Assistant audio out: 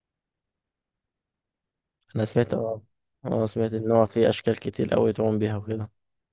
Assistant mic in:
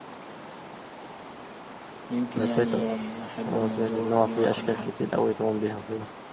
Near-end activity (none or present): present